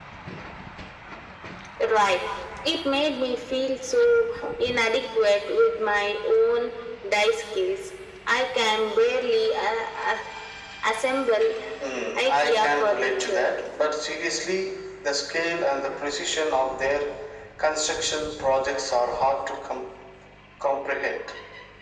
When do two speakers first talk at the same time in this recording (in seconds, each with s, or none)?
12.2 s